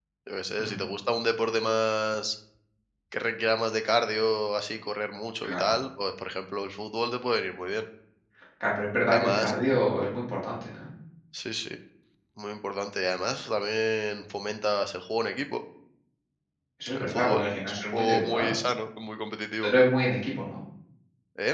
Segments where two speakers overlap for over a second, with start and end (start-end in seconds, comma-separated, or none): 17.0-18.6